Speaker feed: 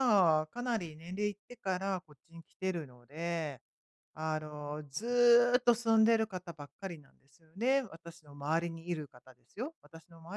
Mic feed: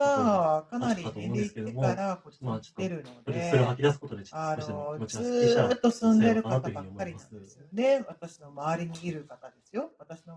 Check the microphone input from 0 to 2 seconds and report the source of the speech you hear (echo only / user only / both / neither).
both